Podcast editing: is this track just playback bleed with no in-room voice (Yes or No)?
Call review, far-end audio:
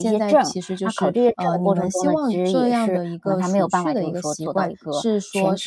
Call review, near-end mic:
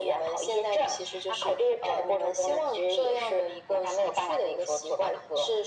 Yes